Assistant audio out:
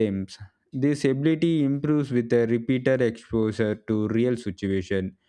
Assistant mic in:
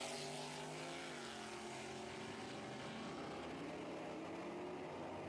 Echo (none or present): none